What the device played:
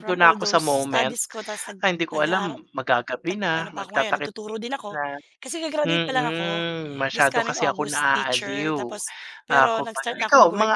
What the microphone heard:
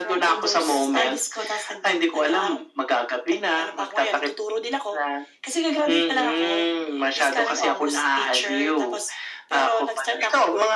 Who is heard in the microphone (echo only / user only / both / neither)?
echo only